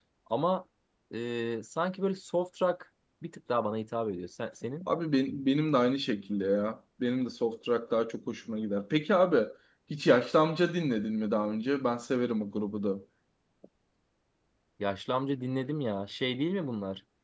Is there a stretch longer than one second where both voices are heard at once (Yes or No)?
No